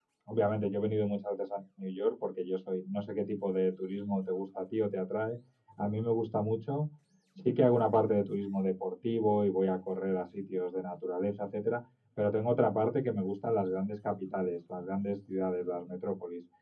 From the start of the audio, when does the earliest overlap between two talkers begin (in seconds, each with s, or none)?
none